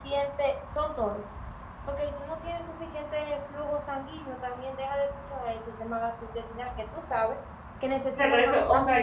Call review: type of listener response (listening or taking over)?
taking over